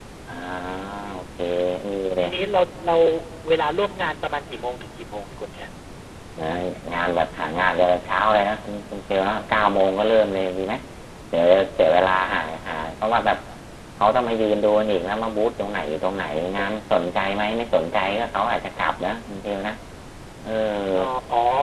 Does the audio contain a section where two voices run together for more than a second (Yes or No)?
No